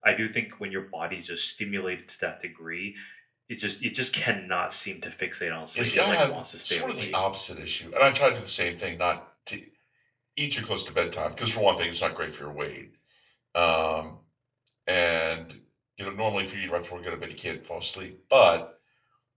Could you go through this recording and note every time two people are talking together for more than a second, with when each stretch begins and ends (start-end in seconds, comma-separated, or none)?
5.8-7.2